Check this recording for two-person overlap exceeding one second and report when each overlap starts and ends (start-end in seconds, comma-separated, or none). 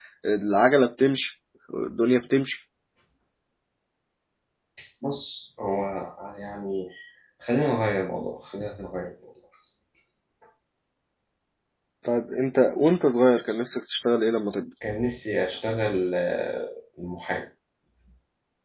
none